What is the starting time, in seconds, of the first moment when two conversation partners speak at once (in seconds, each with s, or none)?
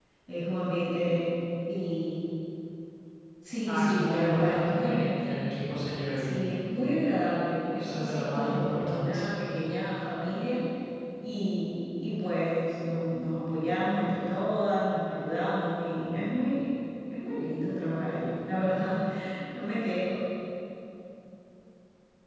3.7 s